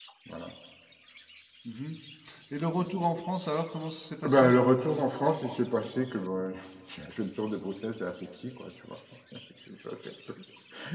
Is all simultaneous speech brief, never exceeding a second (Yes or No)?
Yes